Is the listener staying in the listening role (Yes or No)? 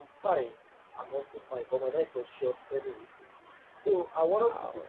Yes